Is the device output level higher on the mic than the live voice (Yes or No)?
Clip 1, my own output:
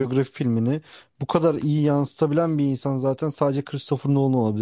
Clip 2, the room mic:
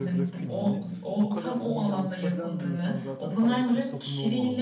No